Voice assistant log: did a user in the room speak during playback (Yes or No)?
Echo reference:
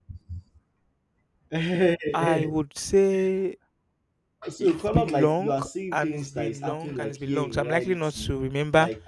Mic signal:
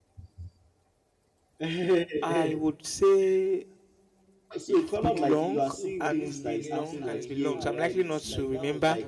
Yes